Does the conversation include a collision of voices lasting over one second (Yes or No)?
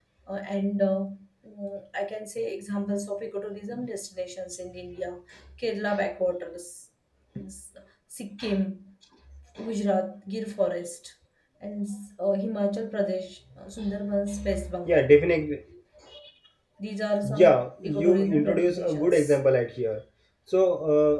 Yes